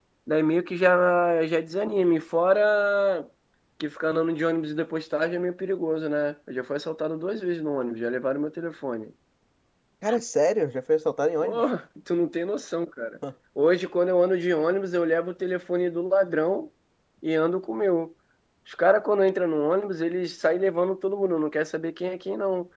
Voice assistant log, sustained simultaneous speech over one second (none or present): none